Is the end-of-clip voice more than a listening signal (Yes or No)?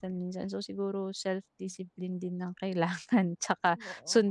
No